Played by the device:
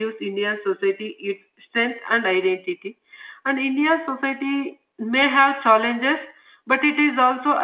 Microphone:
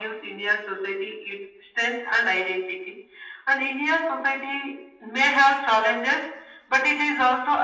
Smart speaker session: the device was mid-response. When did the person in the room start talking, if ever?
none

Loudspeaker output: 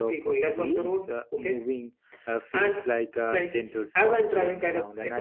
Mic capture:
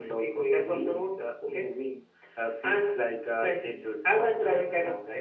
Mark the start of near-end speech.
none

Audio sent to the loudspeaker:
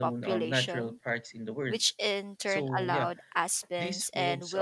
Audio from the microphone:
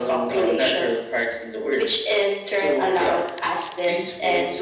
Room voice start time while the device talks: none

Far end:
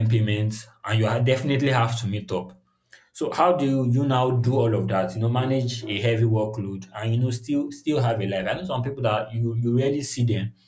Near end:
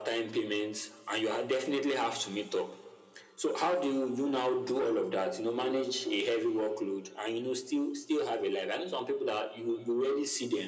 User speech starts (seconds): none

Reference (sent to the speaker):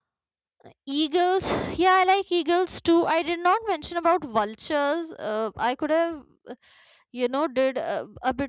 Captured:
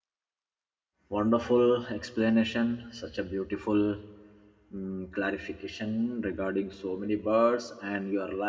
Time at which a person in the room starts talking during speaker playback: 1.1 s

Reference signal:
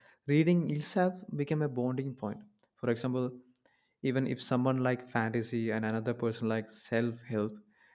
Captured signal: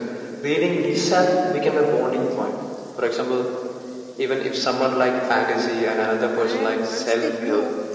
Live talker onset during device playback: 6.4 s

